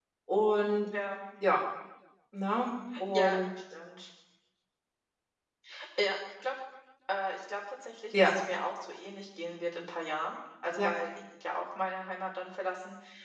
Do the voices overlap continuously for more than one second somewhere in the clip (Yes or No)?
No